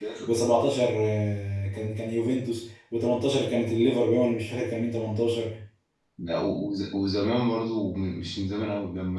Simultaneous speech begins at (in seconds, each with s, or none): none